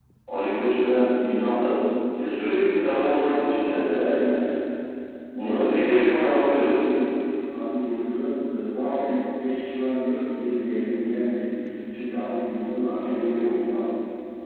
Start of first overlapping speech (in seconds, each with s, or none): 3.2 s